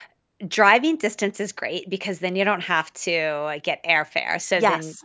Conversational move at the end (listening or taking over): listening